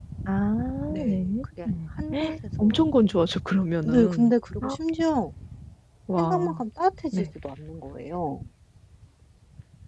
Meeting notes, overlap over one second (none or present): none